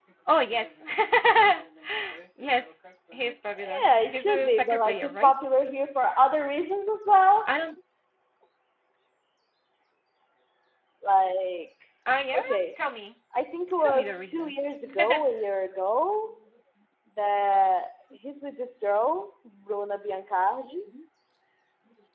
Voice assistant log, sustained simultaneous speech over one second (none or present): present